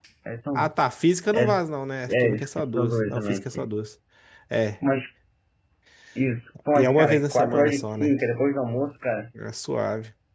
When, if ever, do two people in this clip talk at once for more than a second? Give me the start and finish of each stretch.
2.1-3.7, 6.8-8.1

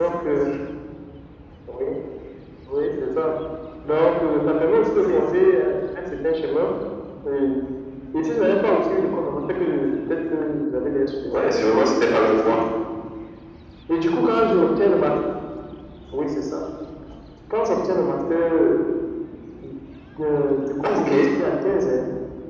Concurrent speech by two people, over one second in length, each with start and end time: 11.3-12.6

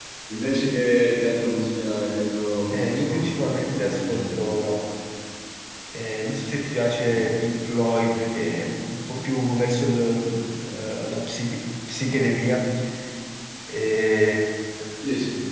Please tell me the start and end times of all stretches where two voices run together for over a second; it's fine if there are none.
2.7-4.5

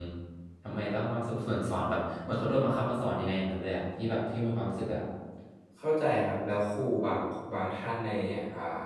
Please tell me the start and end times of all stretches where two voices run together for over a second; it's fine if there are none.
none

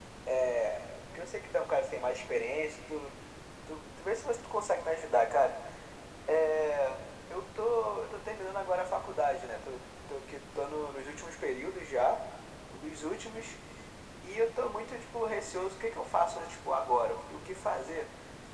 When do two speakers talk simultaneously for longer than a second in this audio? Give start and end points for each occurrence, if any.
none

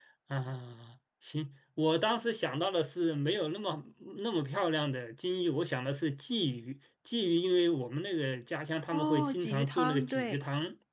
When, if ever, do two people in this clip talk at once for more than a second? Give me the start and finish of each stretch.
8.9-10.4

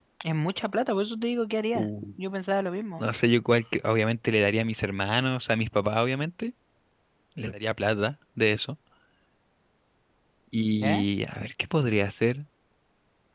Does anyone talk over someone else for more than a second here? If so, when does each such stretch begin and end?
none

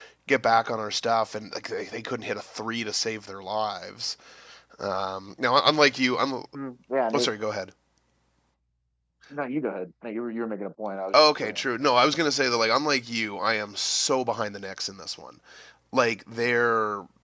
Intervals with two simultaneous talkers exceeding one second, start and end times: none

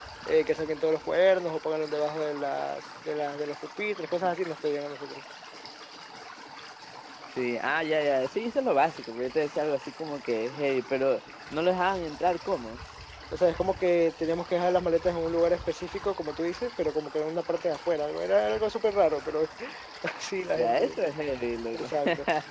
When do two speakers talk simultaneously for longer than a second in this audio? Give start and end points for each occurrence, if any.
none

